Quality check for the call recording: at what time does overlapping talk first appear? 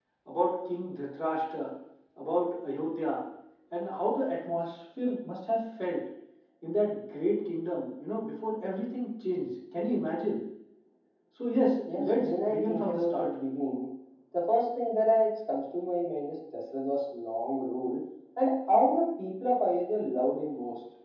12.0 s

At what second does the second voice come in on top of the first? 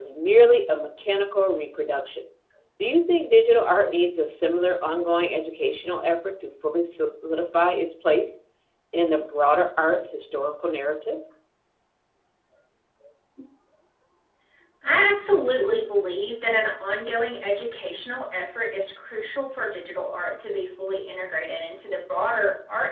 none

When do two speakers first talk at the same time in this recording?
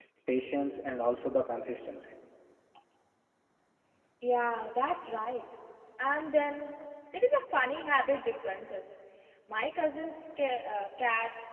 none

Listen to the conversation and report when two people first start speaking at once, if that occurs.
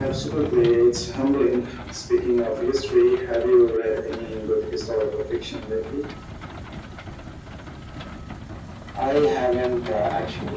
none

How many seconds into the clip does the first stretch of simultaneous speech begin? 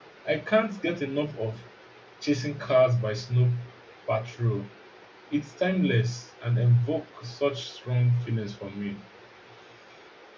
none

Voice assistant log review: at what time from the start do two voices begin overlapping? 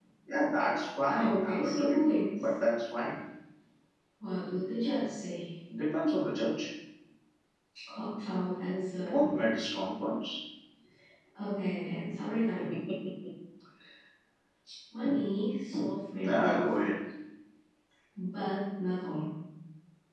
1.2 s

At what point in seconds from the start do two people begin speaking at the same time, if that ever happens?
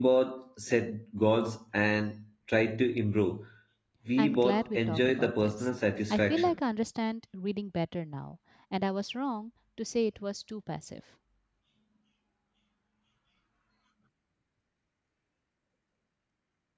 4.2 s

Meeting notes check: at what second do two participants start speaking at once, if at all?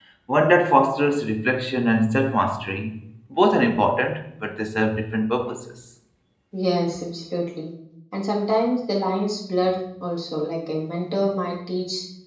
none

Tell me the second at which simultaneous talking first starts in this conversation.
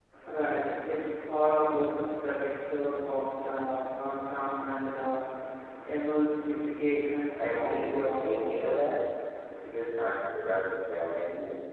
7.3 s

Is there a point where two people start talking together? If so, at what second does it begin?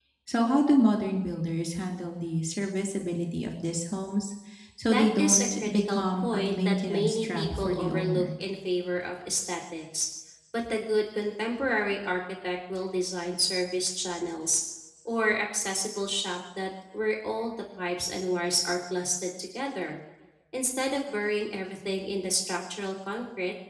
4.8 s

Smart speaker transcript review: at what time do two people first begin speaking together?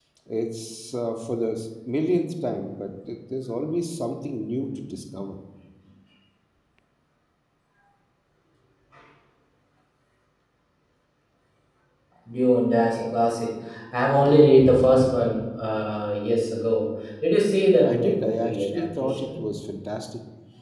17.8 s

